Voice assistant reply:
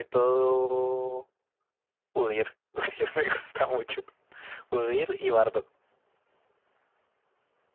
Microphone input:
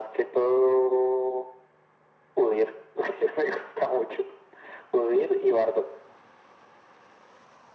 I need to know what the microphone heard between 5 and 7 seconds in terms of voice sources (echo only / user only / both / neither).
echo only